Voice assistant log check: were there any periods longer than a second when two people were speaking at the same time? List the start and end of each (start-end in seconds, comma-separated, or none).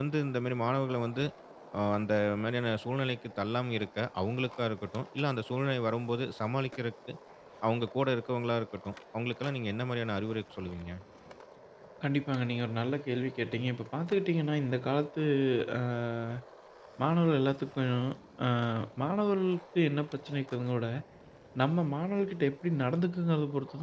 none